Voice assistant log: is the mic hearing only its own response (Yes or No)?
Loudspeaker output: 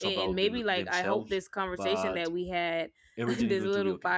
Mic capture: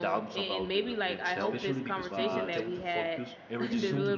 No